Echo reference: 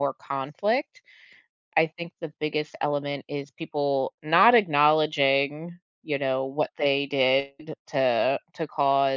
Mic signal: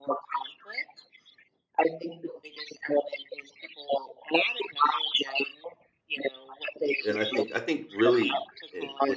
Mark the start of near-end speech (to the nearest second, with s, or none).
7 s